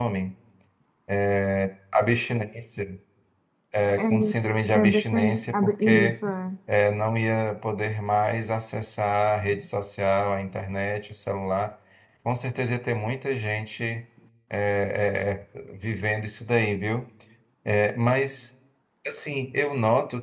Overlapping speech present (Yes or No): Yes